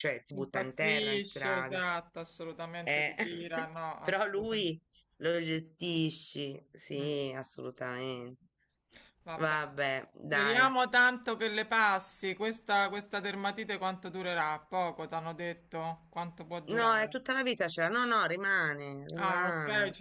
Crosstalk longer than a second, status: present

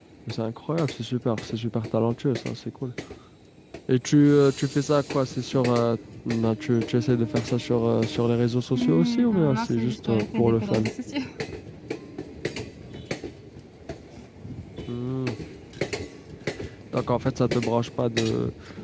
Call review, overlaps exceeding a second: present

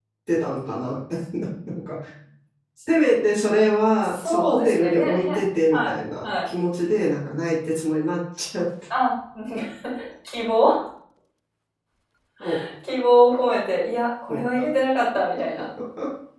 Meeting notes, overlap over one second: present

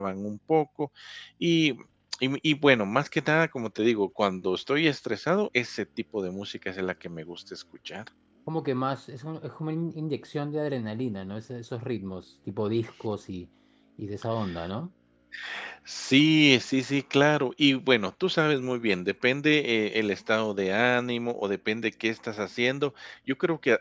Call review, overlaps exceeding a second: none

